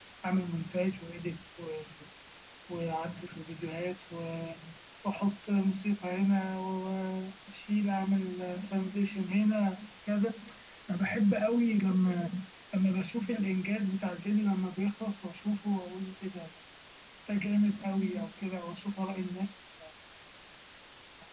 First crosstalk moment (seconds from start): none

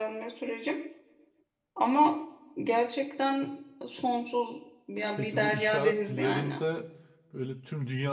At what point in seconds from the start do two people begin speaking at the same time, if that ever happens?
5 s

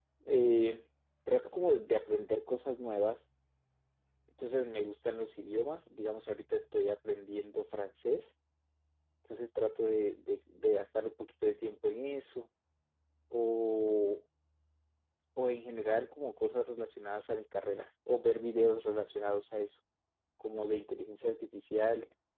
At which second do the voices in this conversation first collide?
none

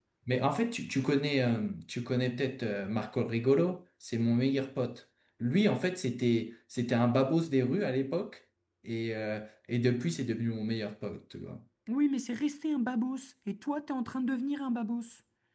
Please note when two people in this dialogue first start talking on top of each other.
none

